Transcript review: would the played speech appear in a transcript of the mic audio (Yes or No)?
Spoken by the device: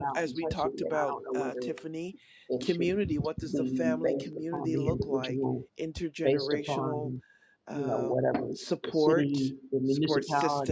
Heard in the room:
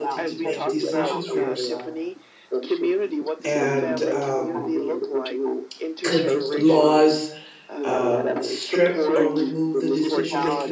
Yes